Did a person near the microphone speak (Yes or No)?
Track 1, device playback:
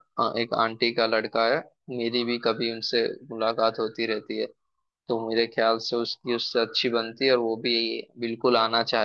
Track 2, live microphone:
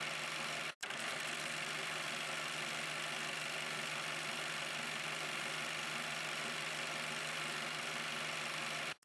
No